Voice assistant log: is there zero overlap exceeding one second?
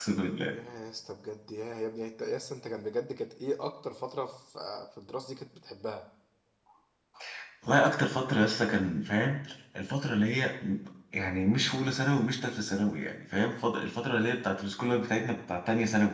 Yes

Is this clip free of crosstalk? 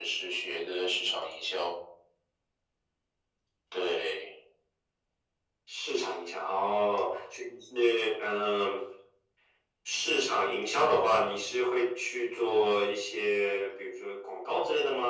Yes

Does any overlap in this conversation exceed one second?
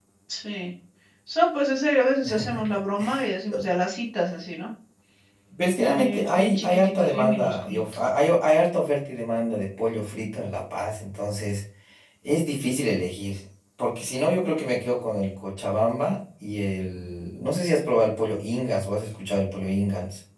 Yes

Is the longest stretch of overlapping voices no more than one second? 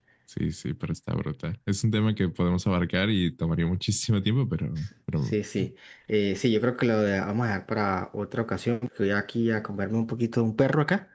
Yes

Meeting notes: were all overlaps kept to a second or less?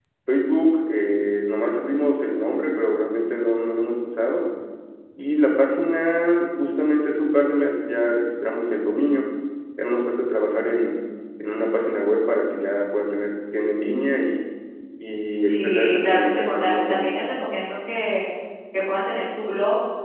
No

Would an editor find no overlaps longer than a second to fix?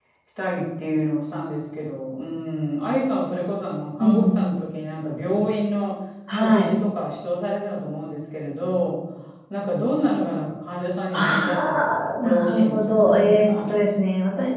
No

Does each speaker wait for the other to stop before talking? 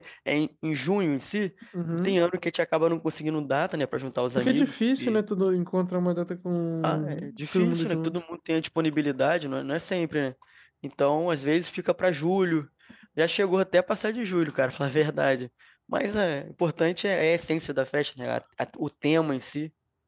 No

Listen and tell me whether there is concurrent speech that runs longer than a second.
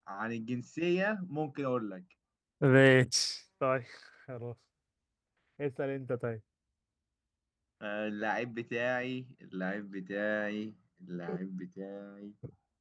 No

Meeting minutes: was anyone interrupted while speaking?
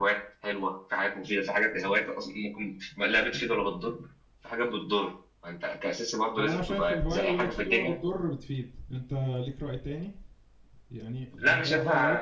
Yes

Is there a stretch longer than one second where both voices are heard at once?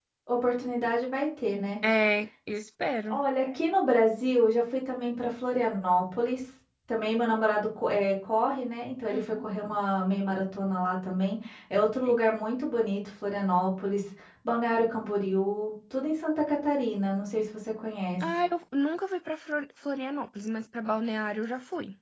No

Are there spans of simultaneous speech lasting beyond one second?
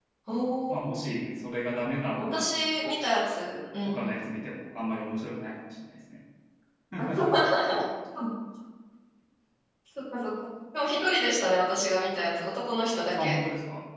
No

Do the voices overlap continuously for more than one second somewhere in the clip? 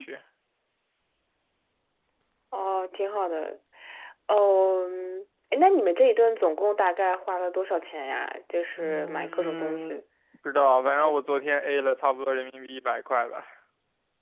Yes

